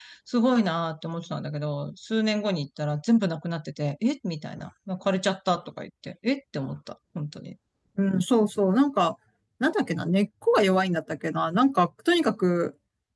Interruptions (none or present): none